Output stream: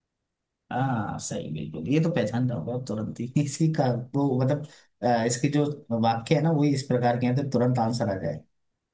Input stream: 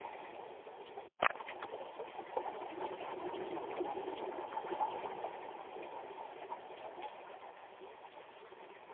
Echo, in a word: none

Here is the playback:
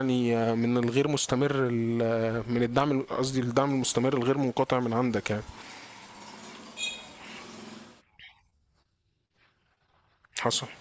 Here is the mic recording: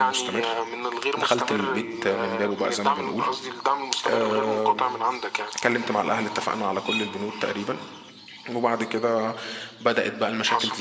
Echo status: present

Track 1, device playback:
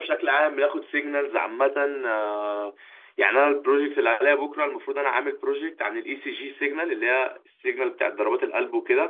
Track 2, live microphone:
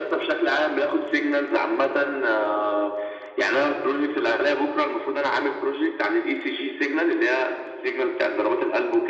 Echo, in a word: present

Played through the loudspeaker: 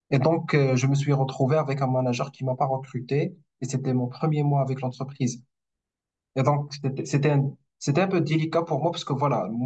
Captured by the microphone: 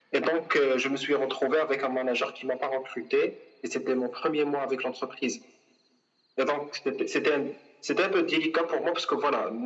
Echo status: present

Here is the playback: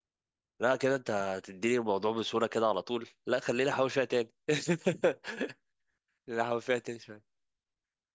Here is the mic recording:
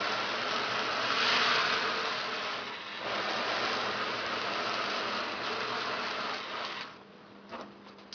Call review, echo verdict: none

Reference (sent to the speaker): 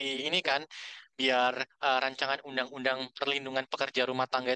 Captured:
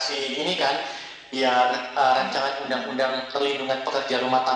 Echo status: present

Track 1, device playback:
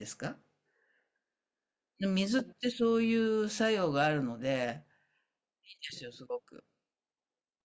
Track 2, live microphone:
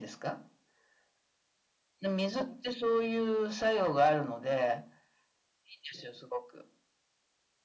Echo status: present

